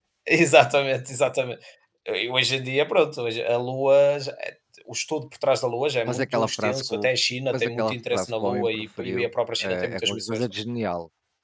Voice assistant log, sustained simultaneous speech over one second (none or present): present